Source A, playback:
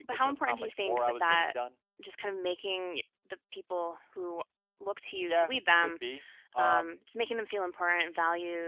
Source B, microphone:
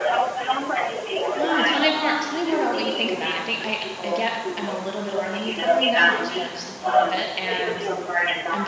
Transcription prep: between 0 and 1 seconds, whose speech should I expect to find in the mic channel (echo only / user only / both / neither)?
echo only